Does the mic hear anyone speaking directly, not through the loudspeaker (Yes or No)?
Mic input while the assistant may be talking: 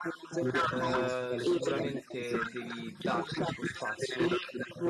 Yes